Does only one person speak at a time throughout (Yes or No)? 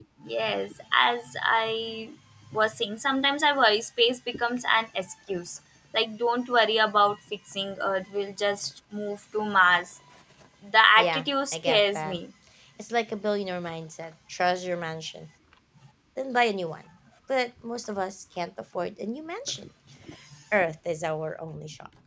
No